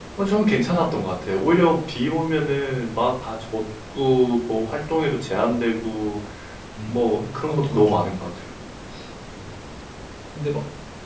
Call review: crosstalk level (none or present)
present